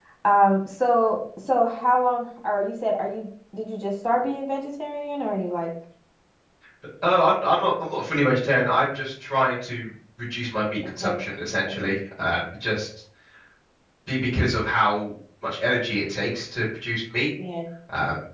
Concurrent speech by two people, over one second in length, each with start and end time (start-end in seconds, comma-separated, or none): none